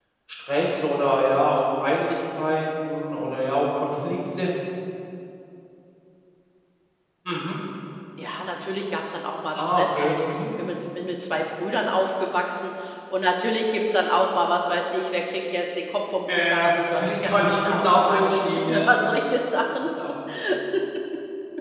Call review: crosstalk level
present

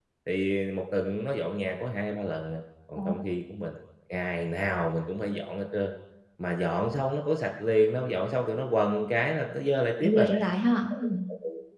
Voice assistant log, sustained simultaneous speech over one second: none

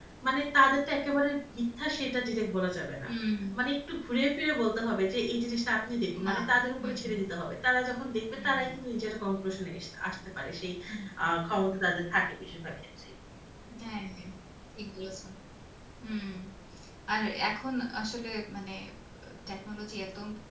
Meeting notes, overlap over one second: none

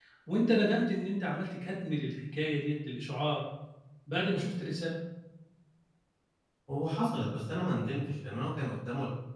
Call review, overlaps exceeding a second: none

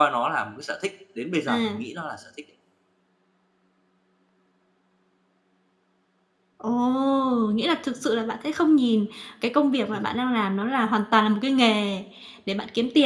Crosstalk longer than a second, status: none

